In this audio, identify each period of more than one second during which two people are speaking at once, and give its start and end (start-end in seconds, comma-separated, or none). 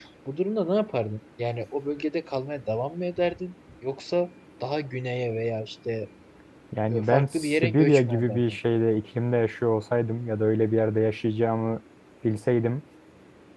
6.9-8.4